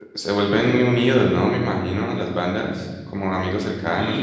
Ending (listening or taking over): taking over